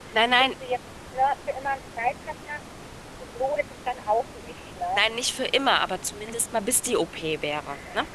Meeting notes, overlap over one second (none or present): none